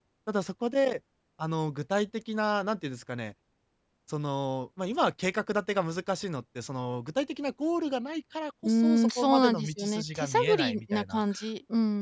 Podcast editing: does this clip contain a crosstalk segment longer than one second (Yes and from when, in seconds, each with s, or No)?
Yes, from 8.6 s